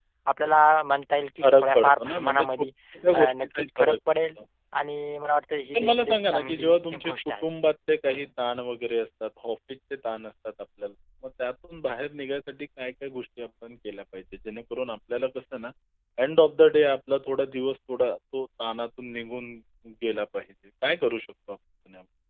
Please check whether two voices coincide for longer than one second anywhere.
Yes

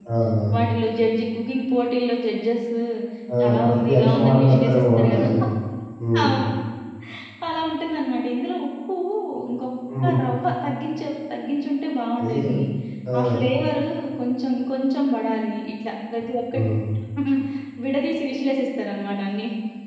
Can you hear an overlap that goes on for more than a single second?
Yes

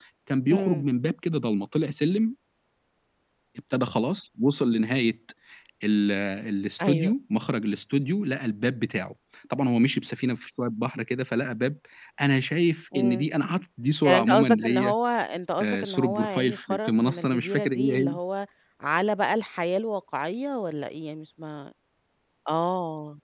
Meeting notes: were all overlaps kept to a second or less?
No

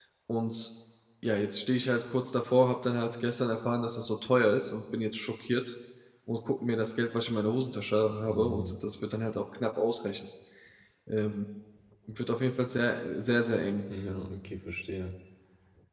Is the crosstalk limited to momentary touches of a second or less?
Yes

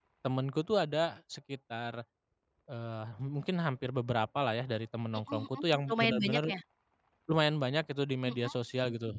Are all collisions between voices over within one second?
No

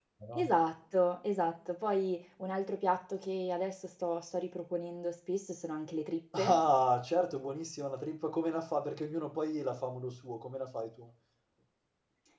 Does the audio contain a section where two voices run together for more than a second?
No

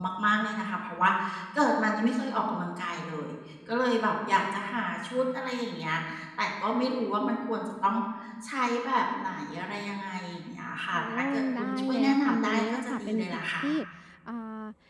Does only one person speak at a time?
No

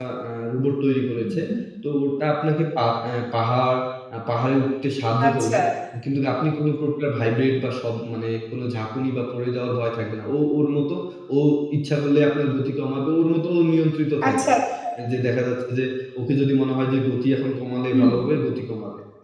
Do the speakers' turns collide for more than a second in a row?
No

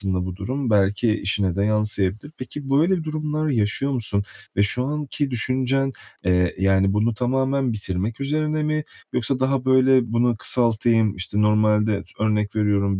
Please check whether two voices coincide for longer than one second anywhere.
No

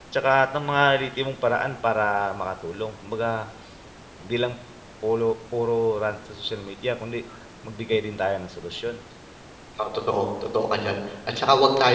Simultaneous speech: No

